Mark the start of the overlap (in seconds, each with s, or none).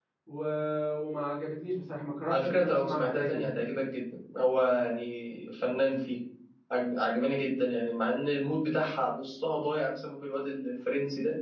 2.3 s